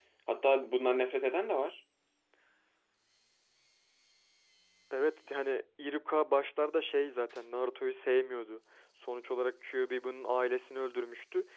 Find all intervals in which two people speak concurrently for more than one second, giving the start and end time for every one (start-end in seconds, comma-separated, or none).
none